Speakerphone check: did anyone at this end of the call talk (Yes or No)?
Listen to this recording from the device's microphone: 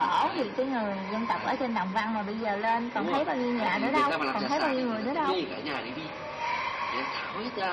Yes